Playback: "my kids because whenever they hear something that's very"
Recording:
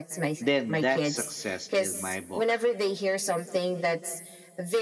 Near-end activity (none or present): present